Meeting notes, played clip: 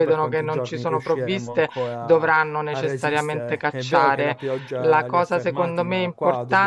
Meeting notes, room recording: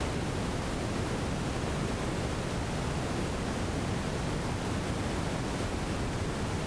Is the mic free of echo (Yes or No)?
Yes